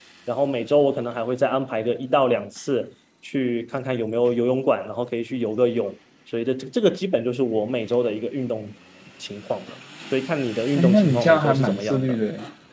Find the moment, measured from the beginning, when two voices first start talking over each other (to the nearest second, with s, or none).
11 s